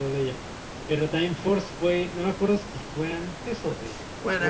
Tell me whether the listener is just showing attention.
No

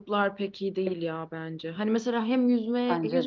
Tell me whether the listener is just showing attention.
Yes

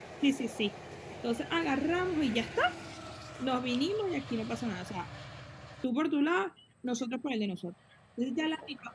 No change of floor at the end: Yes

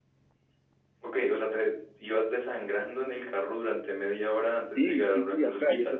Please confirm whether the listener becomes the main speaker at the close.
Yes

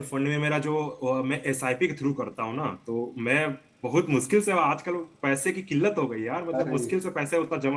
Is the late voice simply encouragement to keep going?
Yes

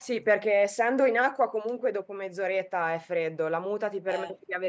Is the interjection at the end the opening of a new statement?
No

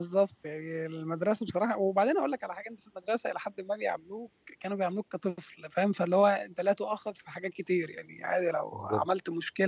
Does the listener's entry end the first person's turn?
No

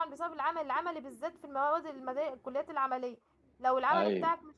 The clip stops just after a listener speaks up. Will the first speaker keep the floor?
Yes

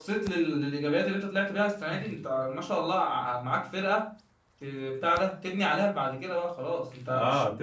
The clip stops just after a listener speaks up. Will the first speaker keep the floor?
No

